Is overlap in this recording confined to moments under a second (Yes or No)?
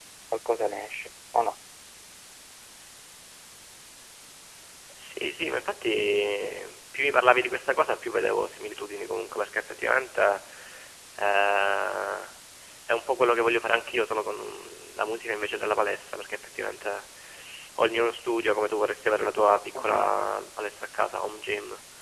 Yes